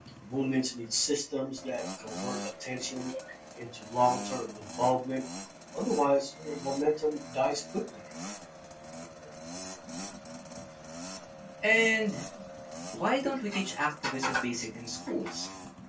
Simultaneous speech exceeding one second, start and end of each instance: none

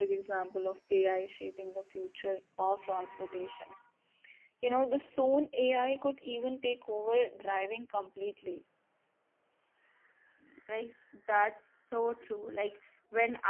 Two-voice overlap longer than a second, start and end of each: none

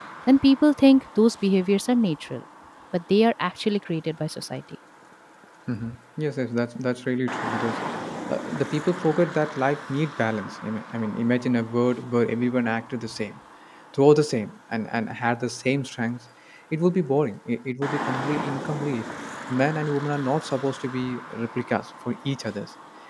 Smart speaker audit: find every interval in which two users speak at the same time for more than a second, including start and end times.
none

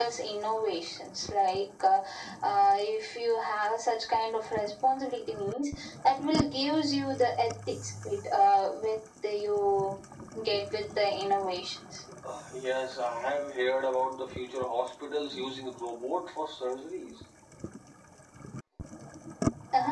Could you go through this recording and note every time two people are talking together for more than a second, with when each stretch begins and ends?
none

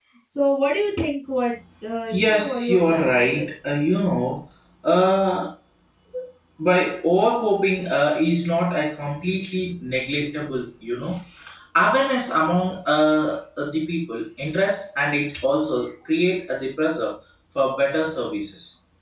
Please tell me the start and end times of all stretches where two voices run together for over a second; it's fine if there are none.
2.1-3.5

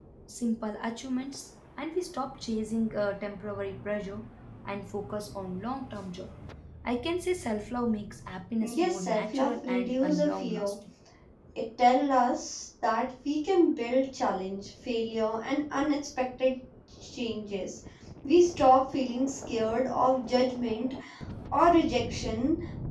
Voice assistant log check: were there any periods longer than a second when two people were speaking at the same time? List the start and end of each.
8.7-10.7

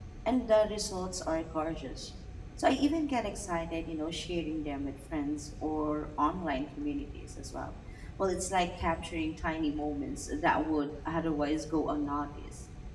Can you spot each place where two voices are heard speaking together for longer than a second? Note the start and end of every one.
none

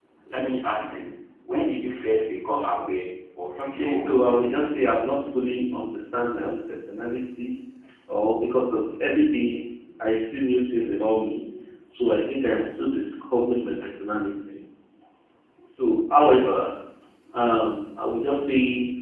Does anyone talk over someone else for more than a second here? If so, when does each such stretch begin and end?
3.6-4.9

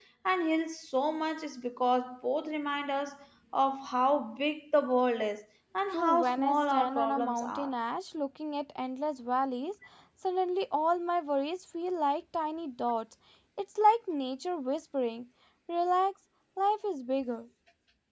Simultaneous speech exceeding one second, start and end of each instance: 5.9-7.7

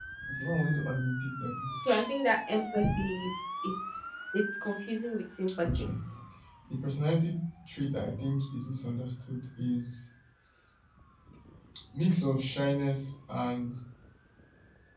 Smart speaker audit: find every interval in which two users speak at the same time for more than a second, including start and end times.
none

